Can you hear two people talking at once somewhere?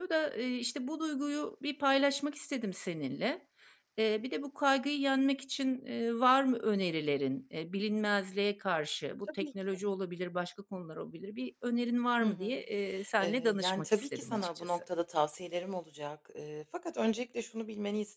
Yes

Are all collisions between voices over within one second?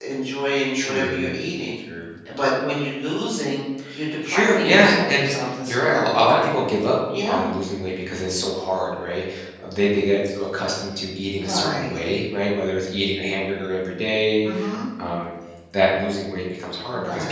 No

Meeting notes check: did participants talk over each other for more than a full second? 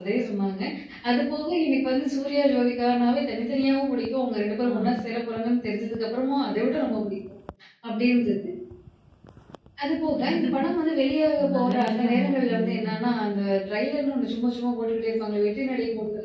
Yes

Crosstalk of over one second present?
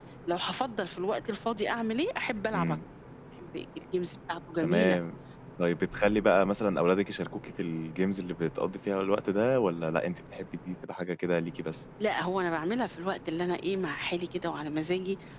No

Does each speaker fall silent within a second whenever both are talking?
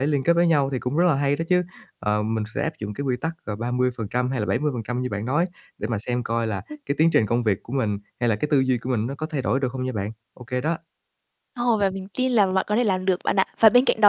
Yes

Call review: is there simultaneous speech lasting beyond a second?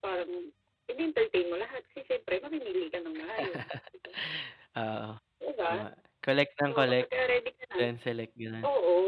No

